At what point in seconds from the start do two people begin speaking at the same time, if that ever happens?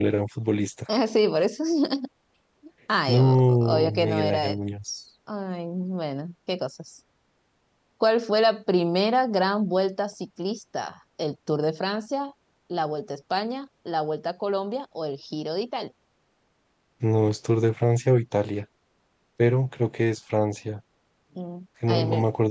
3.1 s

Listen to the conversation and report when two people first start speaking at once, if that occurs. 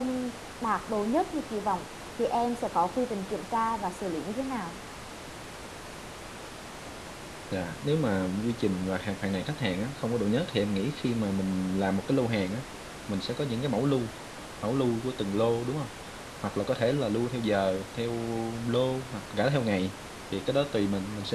none

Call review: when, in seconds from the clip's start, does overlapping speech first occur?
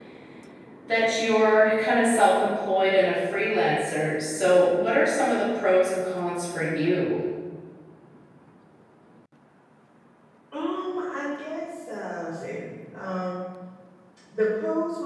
none

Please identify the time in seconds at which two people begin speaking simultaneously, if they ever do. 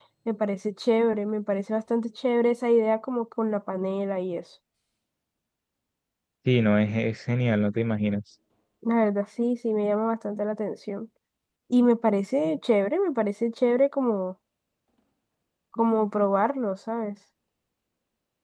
none

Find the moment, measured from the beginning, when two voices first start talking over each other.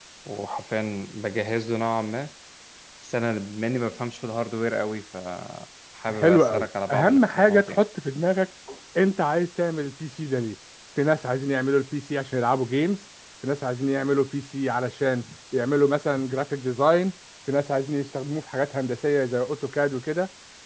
6.1 s

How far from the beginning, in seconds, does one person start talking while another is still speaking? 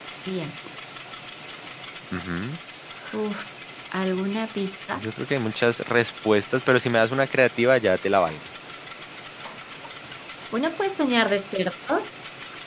none

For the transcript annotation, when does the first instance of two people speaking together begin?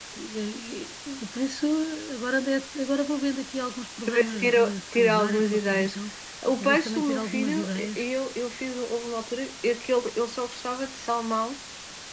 4.0 s

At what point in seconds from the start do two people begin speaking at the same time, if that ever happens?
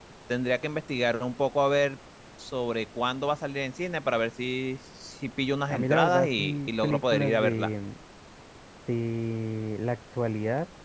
5.7 s

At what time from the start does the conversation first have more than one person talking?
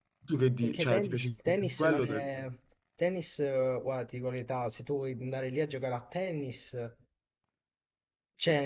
0.6 s

